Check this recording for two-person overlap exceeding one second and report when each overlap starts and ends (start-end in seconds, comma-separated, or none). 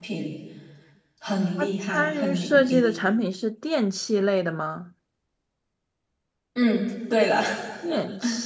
1.6-2.8